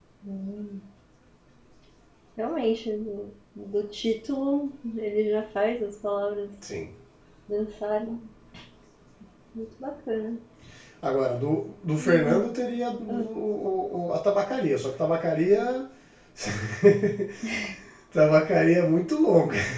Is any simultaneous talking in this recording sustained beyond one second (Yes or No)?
No